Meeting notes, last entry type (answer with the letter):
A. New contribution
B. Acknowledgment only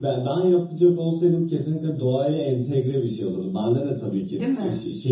B